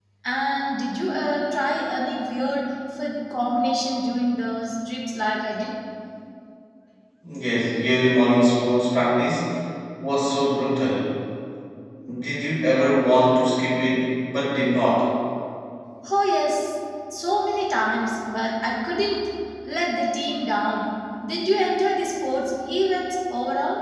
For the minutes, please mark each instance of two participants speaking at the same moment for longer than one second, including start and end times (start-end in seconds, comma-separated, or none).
none